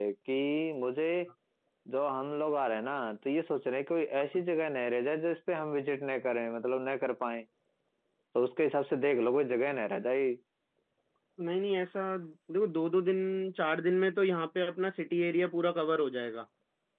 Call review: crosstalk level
none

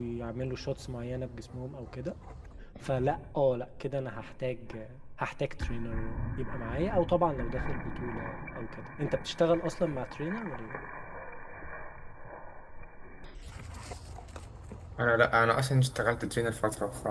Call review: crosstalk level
none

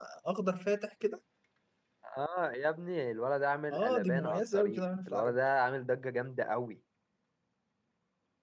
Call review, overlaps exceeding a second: present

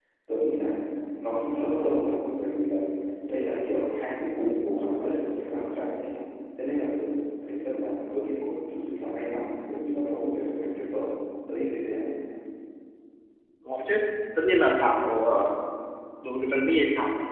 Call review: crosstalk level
none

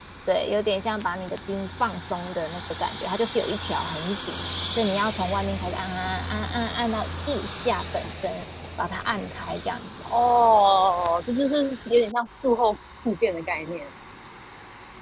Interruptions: none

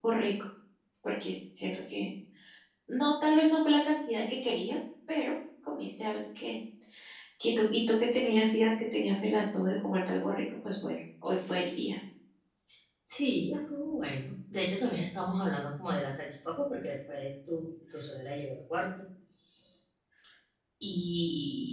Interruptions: none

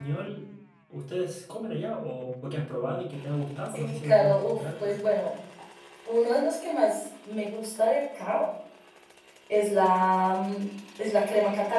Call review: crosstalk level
present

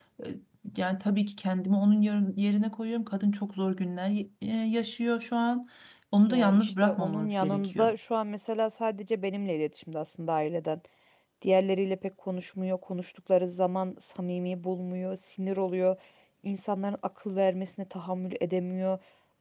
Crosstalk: present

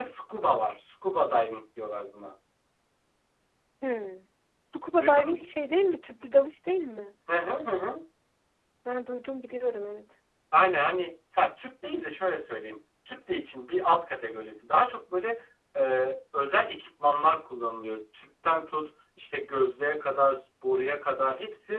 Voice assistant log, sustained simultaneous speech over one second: none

